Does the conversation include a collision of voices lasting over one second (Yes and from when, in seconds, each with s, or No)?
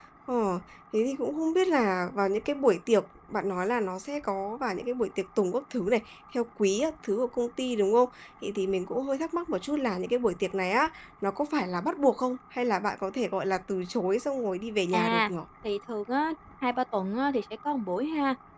No